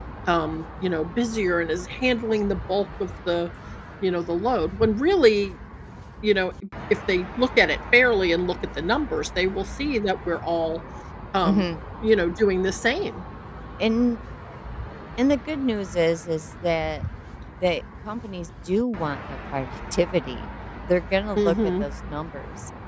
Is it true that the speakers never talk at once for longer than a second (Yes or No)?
Yes